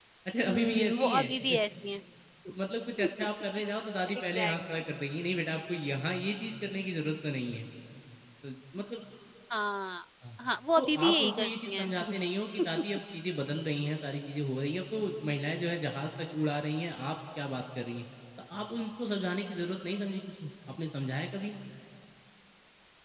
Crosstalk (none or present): present